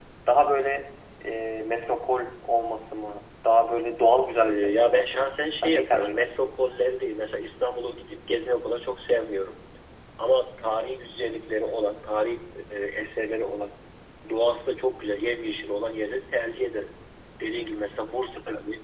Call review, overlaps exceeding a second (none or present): present